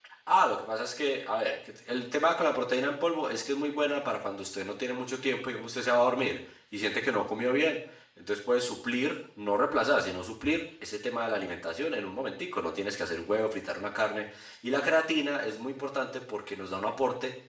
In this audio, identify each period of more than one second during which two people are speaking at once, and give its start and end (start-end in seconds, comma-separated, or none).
none